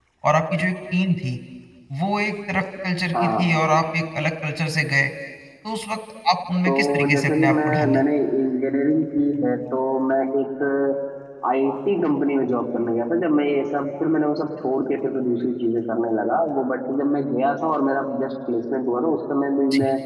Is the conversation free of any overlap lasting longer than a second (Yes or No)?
No